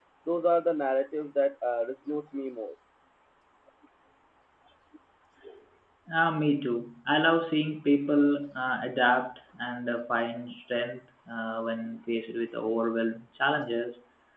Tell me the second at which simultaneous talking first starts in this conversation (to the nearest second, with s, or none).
none